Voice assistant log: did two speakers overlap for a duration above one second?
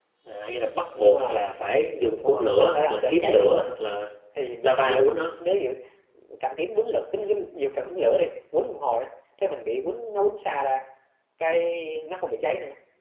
Yes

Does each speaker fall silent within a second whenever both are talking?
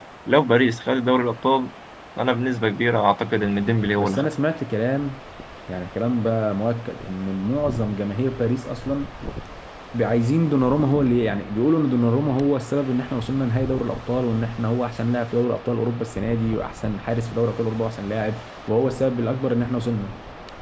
Yes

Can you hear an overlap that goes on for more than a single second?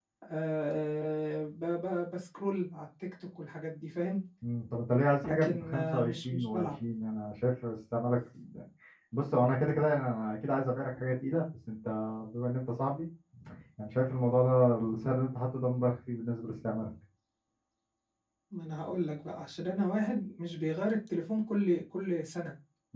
Yes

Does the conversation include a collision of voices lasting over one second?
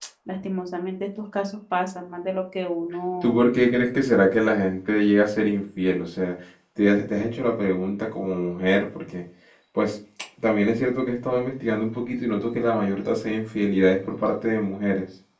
No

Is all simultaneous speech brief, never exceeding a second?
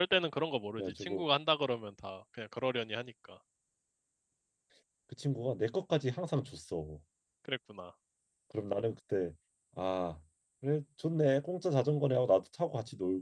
Yes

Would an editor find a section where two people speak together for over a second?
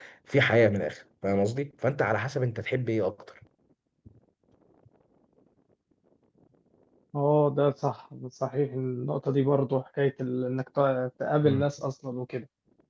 No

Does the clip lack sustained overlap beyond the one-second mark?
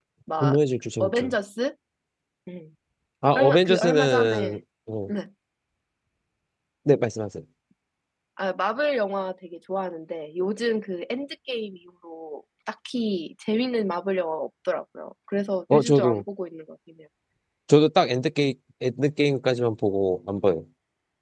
No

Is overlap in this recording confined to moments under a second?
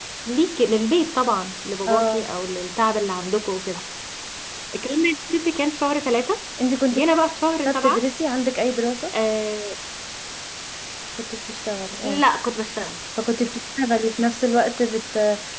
Yes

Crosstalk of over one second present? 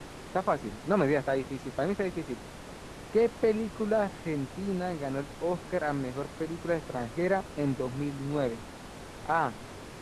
No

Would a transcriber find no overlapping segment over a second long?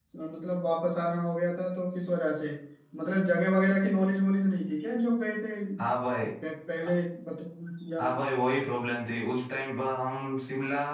Yes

